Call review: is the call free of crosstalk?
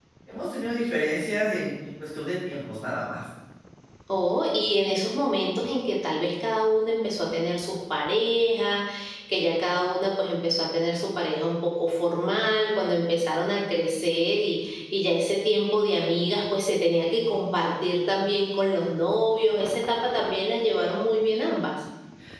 Yes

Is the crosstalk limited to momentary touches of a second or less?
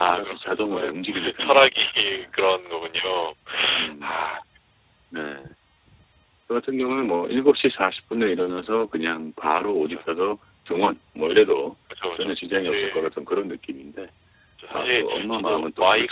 No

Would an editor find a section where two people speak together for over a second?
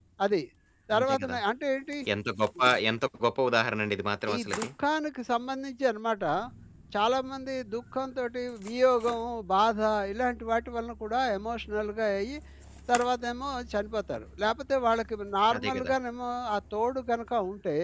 No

